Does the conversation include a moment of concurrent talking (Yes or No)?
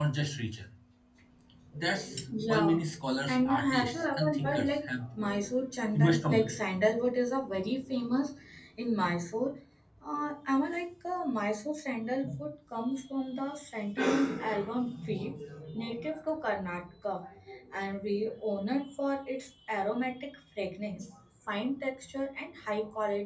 Yes